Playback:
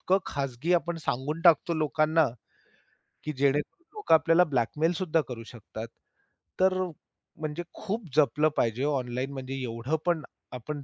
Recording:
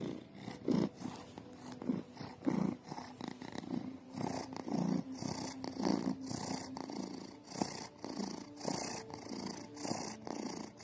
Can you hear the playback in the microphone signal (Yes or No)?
No